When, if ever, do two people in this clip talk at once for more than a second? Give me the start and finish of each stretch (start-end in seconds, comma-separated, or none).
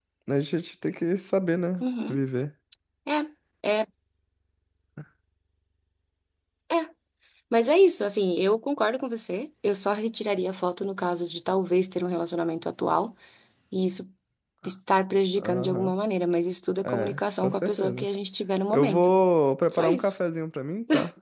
16.8-18.1